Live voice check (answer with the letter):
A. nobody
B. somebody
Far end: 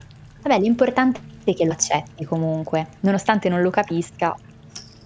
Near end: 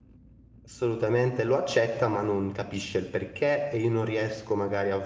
B